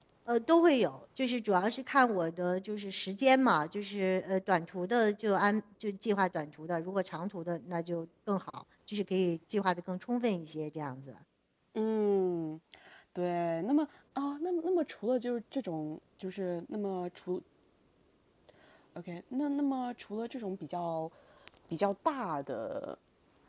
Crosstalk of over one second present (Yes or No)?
No